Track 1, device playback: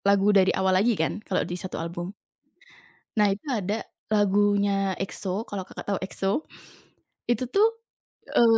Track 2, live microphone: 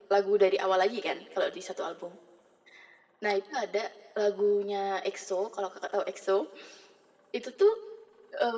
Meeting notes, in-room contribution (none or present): none